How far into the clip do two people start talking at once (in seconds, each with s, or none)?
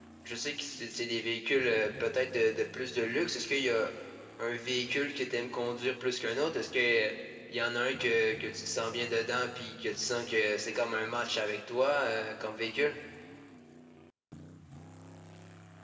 none